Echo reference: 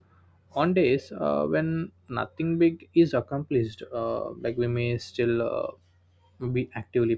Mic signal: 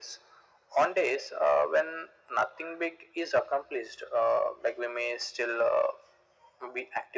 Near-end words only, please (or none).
none